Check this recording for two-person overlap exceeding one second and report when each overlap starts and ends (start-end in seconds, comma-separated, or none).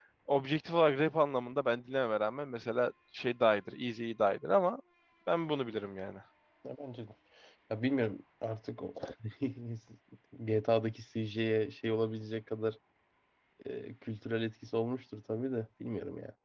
none